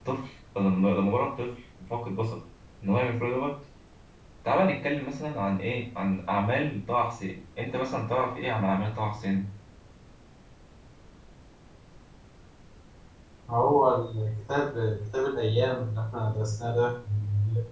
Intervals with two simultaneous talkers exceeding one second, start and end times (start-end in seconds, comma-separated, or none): none